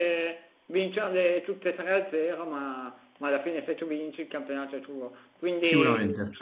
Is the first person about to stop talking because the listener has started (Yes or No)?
No